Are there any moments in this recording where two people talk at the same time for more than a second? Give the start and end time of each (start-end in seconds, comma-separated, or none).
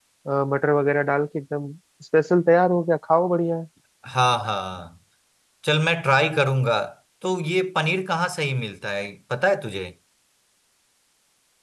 none